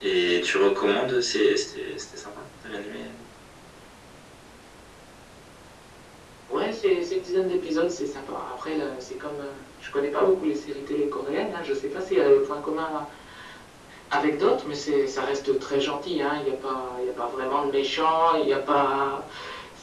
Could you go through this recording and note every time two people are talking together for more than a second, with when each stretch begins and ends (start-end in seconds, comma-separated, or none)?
none